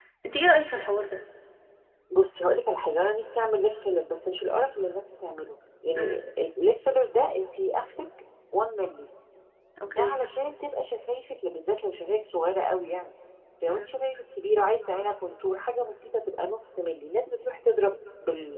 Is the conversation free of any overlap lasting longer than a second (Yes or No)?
Yes